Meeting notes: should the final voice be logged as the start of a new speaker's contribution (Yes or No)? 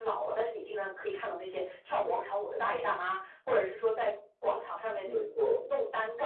No